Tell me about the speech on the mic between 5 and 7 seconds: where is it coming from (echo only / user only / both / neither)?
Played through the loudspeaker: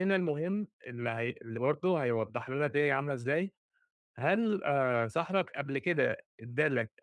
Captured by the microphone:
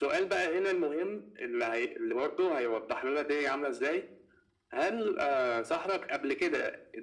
echo only